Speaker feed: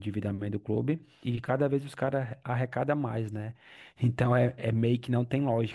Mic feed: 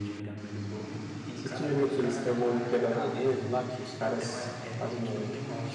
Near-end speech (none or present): present